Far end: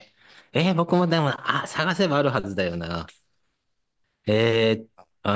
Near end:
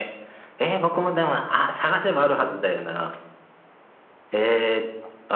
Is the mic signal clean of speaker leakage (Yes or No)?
No